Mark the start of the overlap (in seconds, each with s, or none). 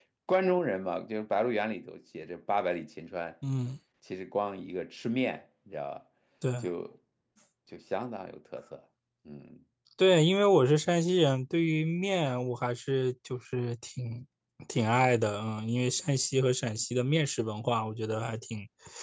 none